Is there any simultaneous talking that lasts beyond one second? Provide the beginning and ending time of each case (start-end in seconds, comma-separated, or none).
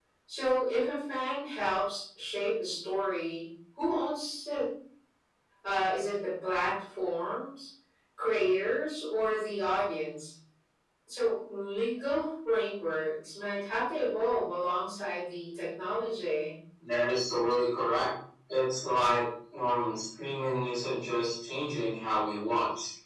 none